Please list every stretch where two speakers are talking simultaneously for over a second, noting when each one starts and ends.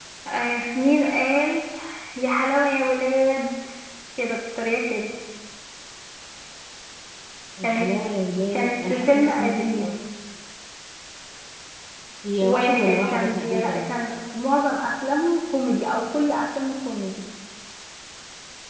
8.5-9.9, 12.4-13.9

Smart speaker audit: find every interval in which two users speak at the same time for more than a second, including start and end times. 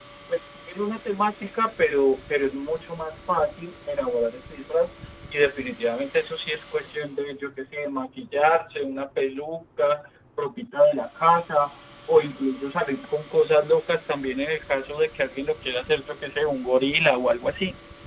none

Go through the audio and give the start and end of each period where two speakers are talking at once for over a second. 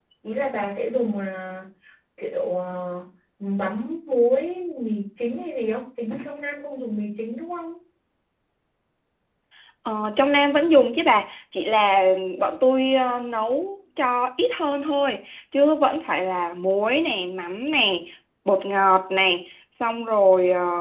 none

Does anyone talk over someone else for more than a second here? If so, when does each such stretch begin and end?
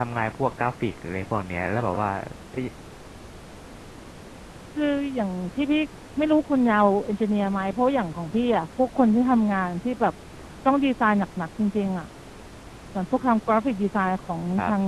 none

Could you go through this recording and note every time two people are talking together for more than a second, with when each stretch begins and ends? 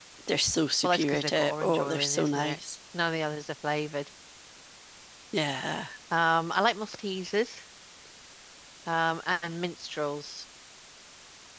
0.8-2.6

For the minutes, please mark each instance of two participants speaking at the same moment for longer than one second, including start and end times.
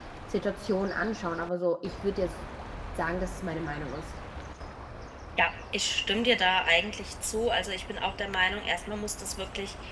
none

